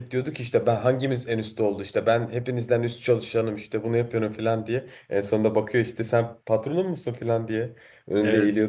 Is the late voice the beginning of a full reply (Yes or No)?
Yes